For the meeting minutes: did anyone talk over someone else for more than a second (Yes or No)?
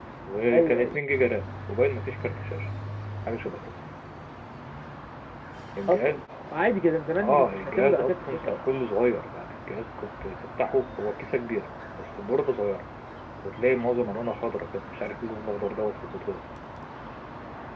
Yes